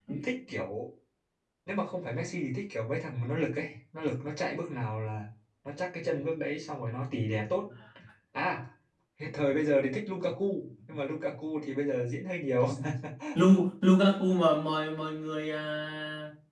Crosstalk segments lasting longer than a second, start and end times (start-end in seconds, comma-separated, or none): none